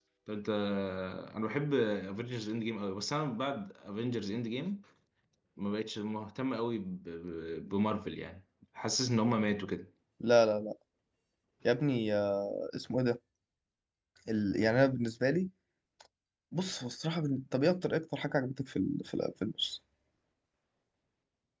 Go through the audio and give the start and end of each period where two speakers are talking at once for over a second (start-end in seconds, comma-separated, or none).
none